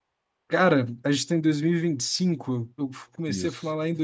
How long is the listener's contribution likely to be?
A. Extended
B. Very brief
B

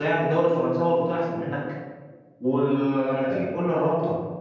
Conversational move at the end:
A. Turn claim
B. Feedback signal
B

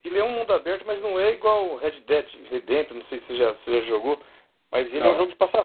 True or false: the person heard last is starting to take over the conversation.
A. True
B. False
B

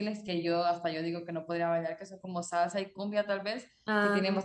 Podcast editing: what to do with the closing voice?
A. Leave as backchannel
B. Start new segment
A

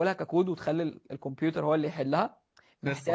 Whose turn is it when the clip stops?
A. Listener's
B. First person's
B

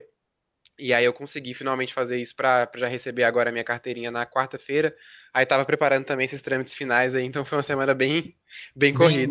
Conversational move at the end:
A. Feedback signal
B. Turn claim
B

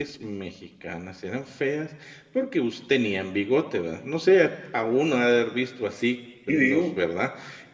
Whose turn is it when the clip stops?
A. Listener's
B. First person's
B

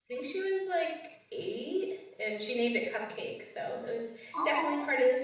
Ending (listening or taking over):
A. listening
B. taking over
A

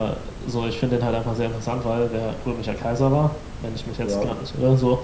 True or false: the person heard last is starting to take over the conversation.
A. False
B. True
A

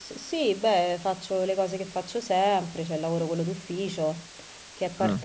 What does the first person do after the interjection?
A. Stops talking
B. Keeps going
B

